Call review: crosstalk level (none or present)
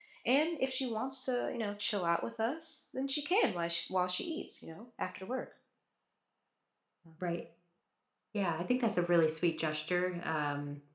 none